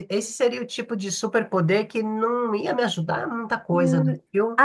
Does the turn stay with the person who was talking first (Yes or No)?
No